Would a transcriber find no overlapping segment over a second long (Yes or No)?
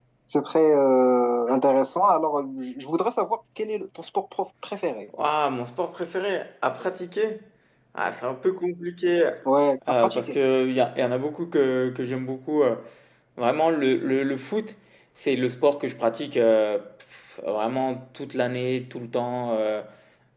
Yes